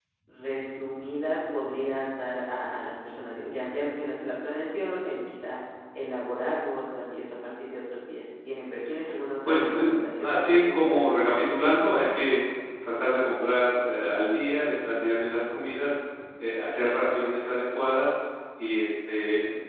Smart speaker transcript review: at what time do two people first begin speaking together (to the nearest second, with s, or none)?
9 s